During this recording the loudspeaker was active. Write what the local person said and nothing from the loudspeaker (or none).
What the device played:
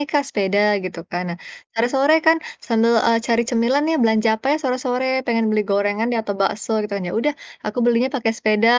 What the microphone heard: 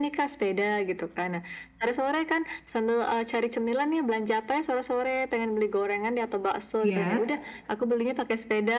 iya.